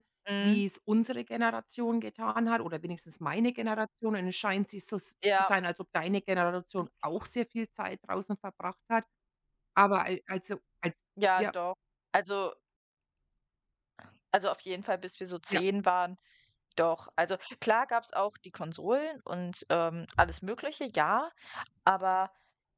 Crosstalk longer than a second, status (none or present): none